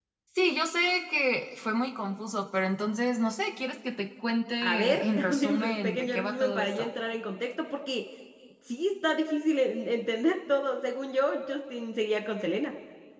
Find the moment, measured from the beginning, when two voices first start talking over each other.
4.6 s

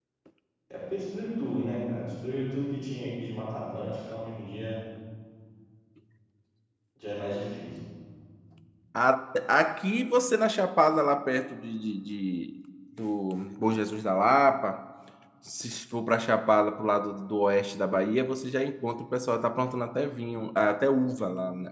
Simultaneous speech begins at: none

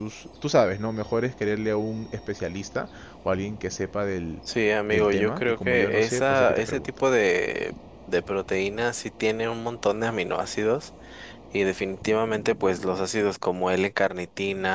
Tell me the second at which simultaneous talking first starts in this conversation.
4.9 s

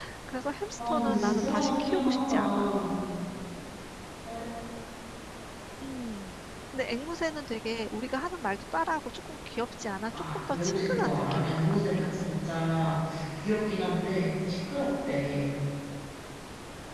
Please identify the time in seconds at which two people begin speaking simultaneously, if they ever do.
0.9 s

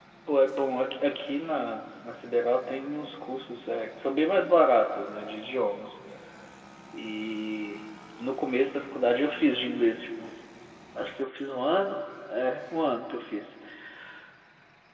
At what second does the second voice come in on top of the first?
none

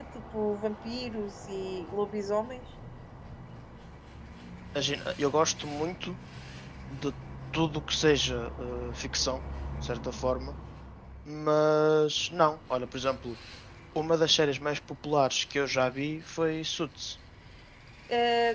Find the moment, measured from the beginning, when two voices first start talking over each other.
none

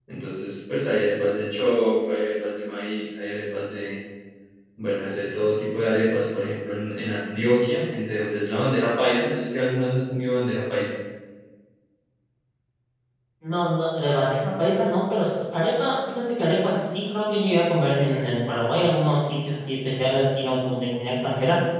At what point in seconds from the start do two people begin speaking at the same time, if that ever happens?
none

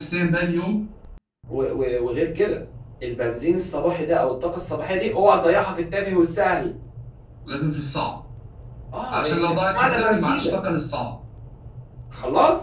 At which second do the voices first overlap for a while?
9.1 s

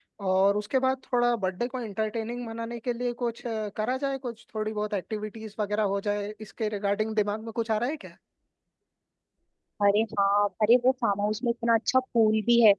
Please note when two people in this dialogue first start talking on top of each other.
none

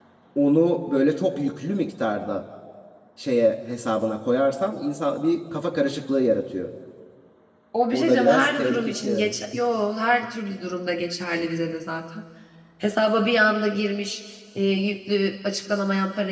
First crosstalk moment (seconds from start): 7.9 s

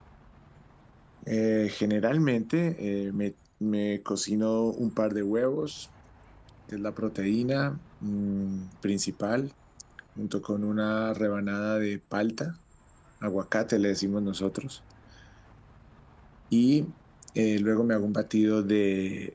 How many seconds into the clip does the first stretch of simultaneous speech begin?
none

